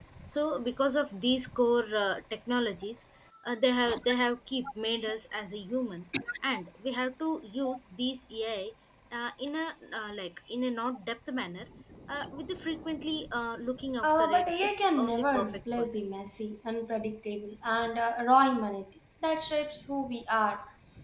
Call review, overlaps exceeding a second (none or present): present